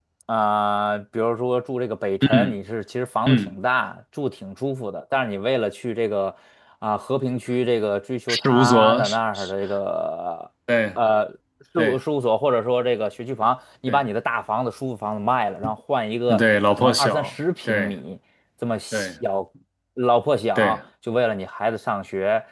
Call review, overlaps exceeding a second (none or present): present